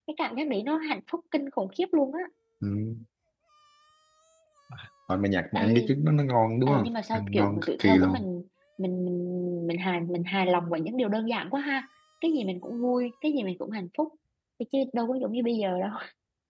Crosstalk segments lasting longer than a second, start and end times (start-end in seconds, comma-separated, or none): 6.7-8.2